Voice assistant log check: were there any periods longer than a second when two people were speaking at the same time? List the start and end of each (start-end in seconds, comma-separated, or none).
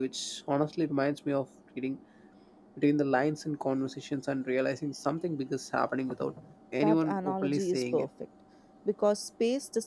6.8-8.1